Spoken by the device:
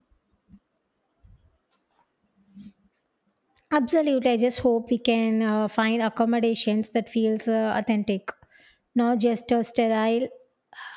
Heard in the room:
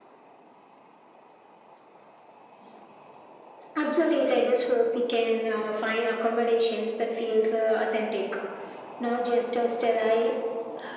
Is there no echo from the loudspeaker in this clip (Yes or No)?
No